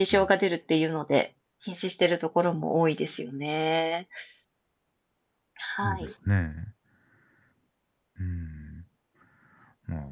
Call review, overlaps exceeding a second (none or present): none